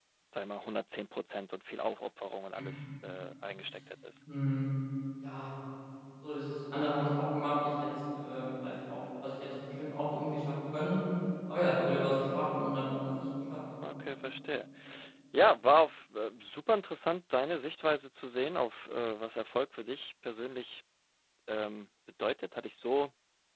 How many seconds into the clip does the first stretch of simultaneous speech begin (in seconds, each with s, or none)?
none